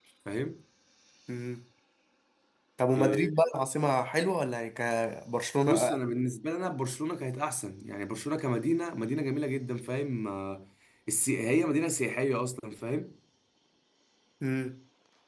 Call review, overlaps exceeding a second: none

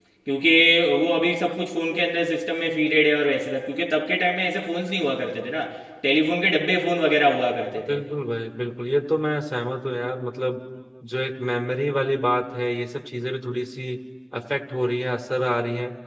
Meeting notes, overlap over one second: none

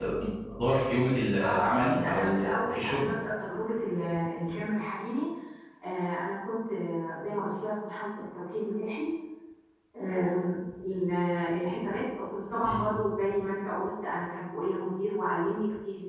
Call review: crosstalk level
present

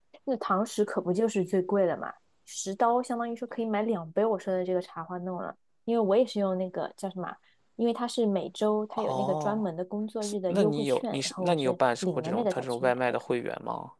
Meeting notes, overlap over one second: present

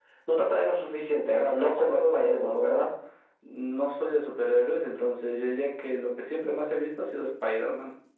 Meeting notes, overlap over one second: present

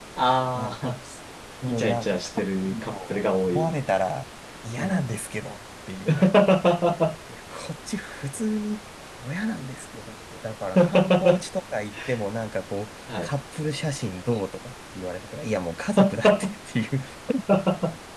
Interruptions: present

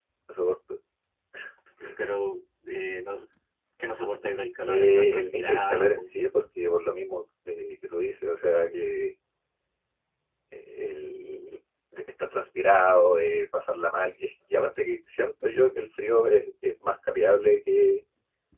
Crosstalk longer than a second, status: present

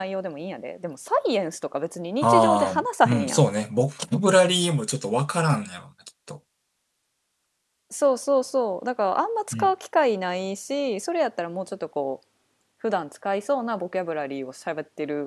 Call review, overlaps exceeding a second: present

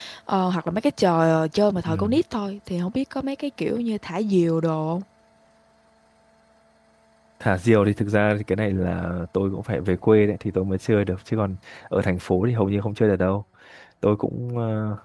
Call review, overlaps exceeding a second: none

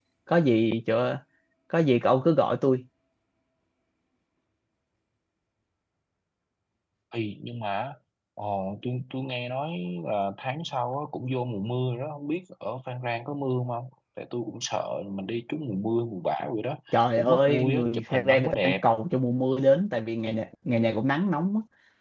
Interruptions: present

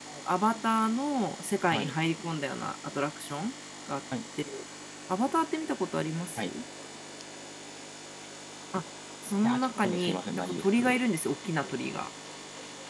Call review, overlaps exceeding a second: present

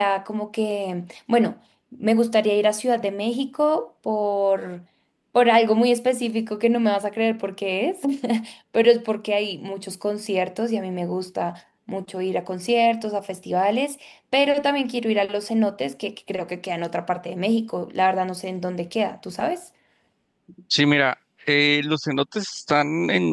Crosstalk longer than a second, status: none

